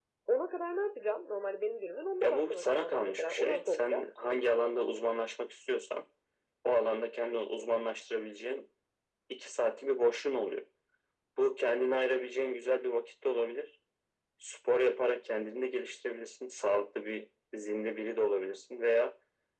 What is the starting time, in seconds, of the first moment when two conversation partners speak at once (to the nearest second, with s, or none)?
2 s